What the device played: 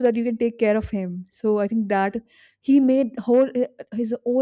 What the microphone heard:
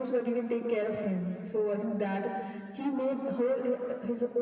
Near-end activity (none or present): none